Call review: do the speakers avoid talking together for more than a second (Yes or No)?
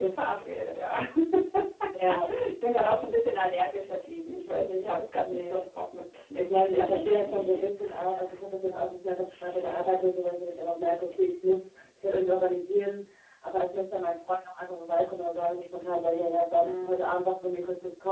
No